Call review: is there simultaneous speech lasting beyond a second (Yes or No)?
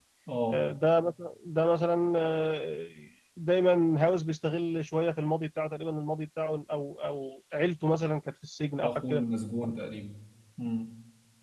No